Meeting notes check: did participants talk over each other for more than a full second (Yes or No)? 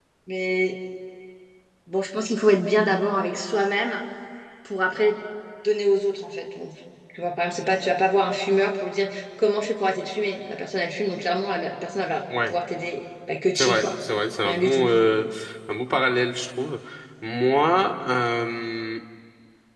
No